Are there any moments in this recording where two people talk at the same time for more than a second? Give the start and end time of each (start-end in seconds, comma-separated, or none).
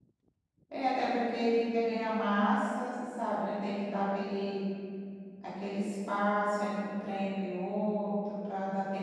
none